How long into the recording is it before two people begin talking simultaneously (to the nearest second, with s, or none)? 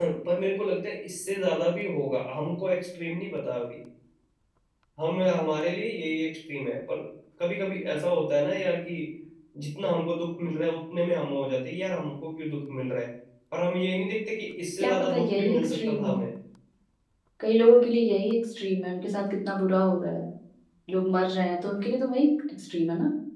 15 s